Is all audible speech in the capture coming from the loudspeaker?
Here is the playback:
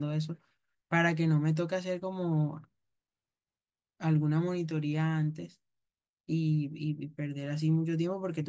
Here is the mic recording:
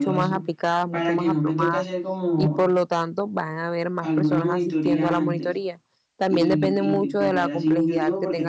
No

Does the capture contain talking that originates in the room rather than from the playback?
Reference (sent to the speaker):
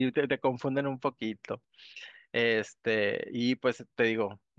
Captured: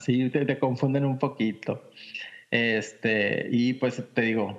No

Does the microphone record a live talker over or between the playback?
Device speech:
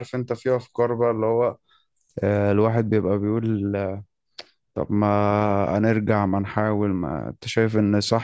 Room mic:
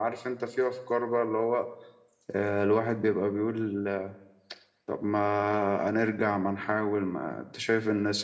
No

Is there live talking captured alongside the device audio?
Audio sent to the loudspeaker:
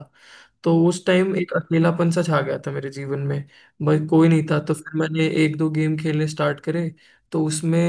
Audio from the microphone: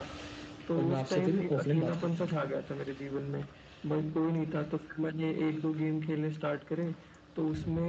Yes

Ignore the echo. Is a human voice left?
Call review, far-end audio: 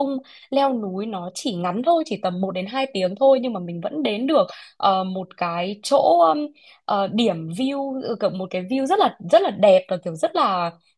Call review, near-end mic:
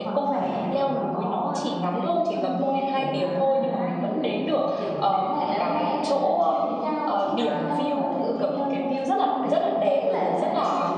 Yes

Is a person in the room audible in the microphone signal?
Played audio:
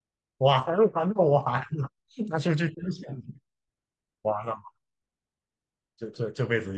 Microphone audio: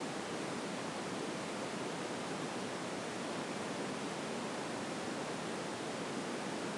No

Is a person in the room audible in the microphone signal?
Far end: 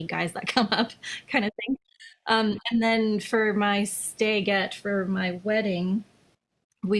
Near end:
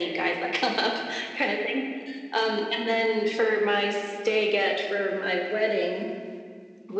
No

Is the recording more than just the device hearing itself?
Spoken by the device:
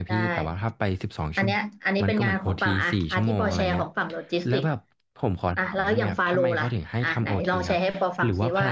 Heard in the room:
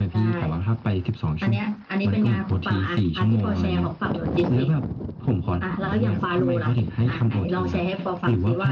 No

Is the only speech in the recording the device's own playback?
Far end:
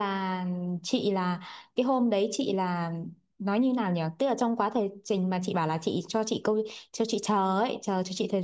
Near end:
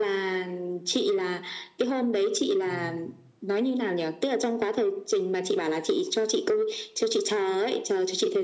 No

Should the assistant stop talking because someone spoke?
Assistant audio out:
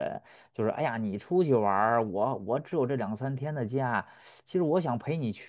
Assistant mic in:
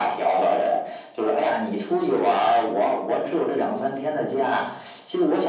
No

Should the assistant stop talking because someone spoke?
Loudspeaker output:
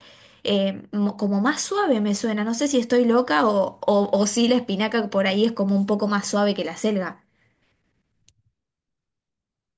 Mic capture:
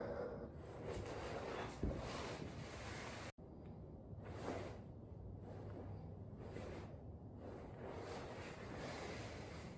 No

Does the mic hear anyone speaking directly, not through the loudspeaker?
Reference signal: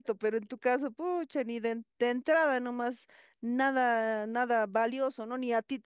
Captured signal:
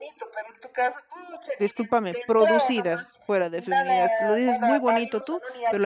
Yes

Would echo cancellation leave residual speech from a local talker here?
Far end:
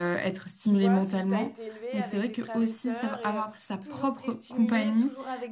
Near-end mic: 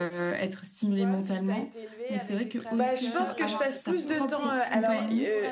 Yes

